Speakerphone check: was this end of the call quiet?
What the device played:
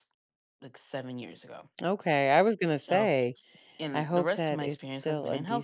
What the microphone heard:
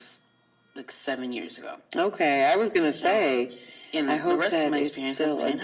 Yes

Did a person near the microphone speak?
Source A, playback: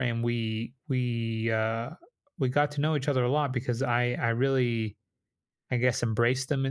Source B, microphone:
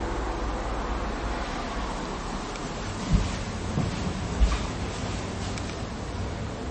No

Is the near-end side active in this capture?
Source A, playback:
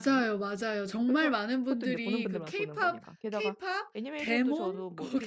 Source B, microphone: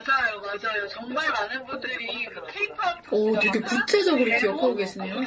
Yes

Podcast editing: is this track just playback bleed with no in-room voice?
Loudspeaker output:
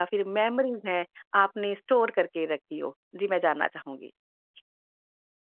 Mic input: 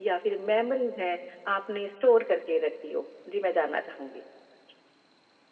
Yes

